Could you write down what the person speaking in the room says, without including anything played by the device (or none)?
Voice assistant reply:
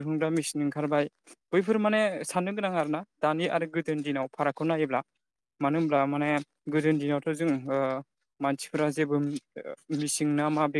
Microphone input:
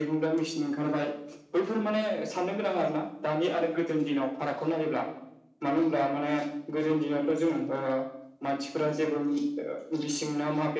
none